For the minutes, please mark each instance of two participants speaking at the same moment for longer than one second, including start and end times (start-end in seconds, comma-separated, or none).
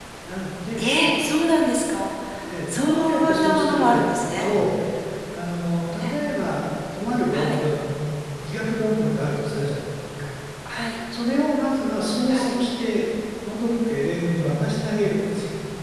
2.7-4.5